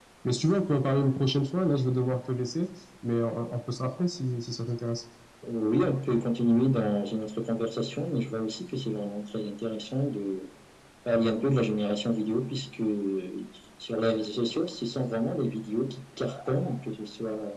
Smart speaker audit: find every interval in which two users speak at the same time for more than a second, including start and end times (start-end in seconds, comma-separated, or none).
none